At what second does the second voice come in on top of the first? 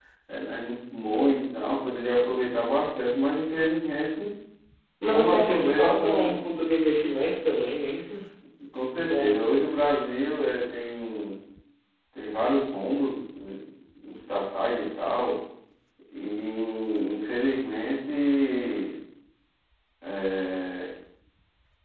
5.1 s

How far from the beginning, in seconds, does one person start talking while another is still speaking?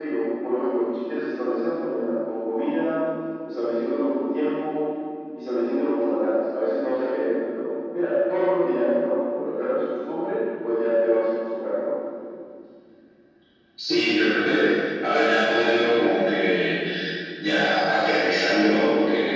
none

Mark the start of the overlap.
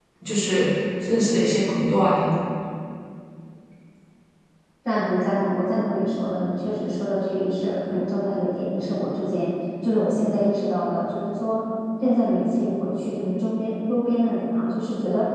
none

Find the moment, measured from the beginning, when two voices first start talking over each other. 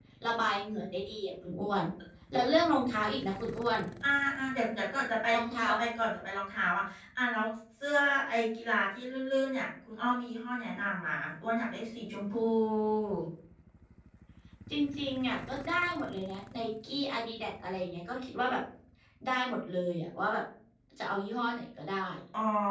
none

